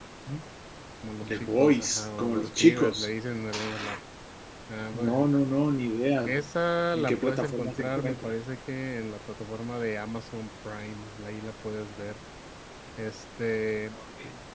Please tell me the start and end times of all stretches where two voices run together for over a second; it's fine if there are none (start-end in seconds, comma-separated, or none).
1.3-3.1, 6.9-8.3